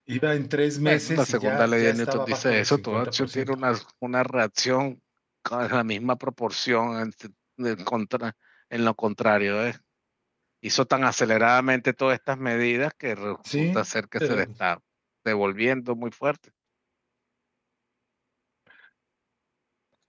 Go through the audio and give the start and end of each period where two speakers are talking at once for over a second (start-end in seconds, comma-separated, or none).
0.9-3.5